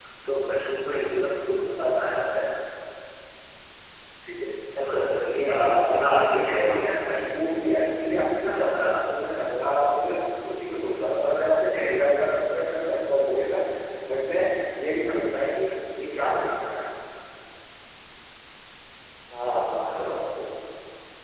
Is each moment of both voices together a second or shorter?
No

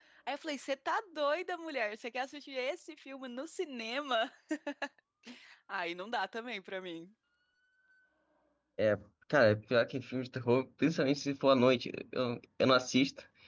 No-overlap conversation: Yes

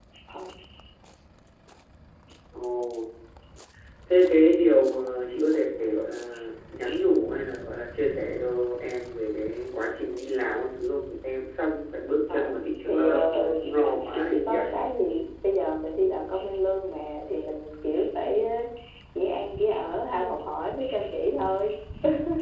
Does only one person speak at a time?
No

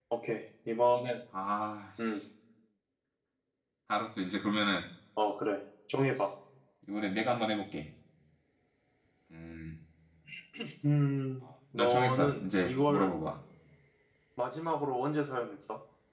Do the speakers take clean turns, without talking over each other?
No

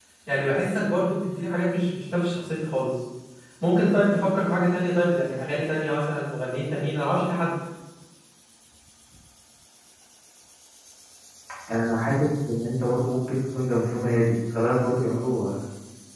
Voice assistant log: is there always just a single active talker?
Yes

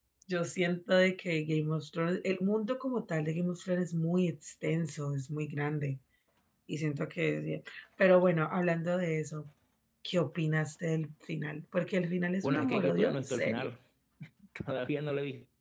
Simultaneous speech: Yes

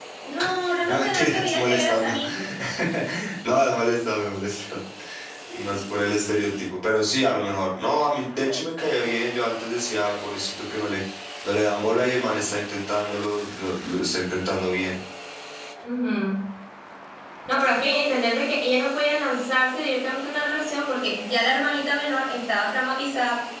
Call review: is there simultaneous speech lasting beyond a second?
Yes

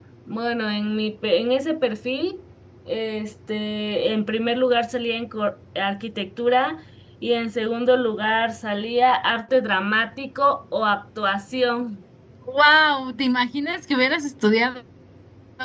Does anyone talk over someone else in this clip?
No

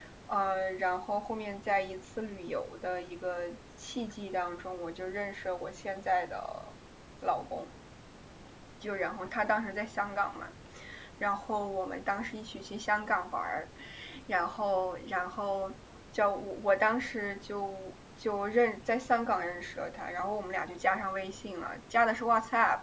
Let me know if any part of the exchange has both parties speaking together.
No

